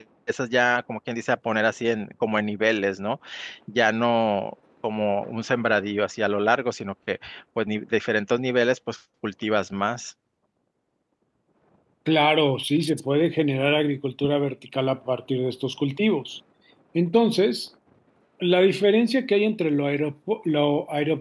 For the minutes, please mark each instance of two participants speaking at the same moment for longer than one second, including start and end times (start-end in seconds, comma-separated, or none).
none